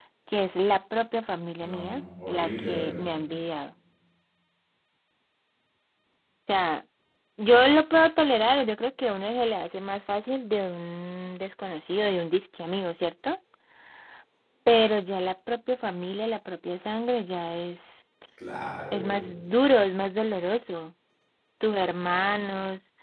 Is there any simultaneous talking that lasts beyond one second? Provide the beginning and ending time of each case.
1.6-3.1

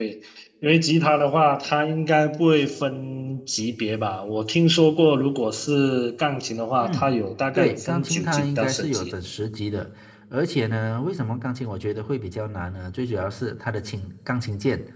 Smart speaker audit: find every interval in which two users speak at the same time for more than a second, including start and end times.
7.6-9.1

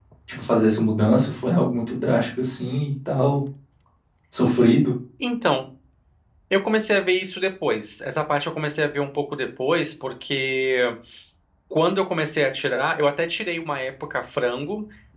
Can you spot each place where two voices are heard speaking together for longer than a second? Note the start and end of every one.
none

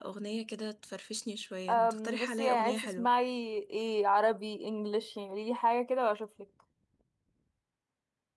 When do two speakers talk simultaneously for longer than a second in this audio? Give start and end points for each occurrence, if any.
1.7-3.1

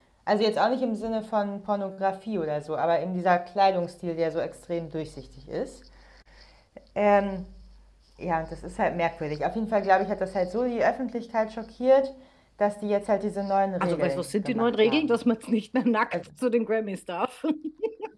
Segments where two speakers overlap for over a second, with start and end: 13.8-15.2

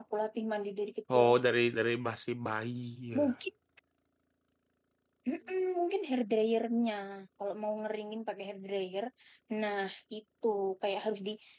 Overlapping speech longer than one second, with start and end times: none

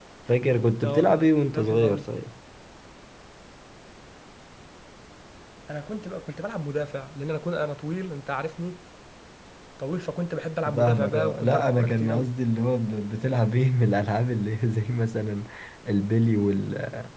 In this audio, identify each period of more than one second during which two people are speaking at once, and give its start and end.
0.8-2.1, 10.8-12.3

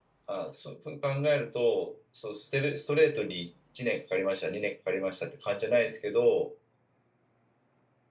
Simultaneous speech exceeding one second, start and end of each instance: none

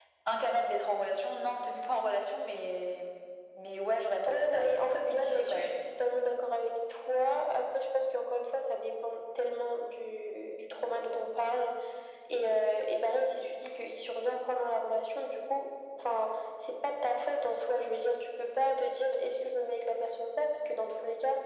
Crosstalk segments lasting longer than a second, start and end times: 4.3-5.7

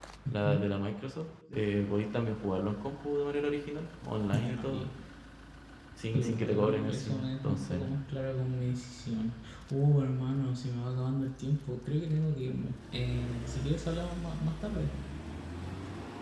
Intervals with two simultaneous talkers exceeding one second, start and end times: 6.1-7.8

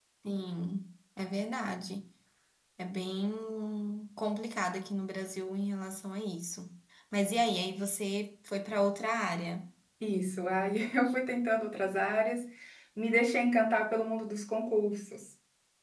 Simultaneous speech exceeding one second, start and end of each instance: none

